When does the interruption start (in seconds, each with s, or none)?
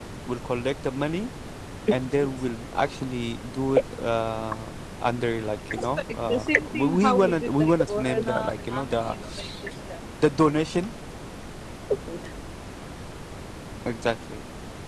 5.7 s